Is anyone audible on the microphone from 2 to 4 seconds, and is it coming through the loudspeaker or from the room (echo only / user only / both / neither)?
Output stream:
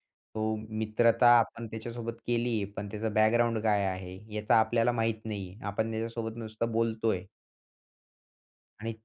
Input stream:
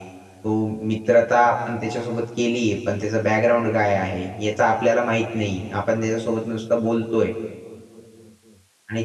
echo only